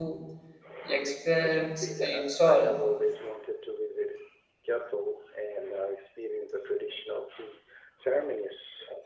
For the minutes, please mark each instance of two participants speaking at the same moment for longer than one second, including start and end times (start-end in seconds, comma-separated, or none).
1.4-2.7